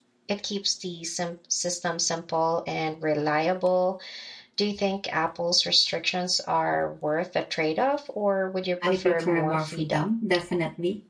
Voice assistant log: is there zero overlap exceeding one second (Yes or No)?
No